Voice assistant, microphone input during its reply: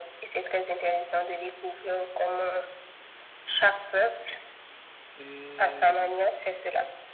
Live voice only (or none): Et euh,